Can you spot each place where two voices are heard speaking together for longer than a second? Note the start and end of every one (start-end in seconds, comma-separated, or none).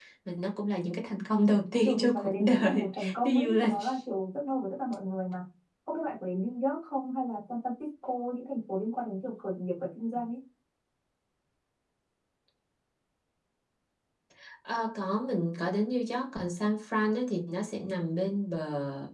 1.8-3.7